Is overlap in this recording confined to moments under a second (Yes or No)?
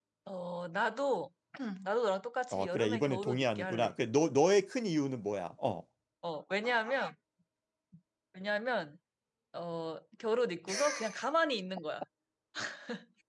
No